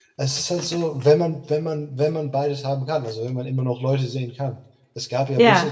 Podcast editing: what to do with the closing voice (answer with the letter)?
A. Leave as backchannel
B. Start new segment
A